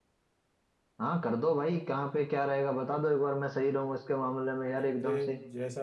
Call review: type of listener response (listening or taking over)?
taking over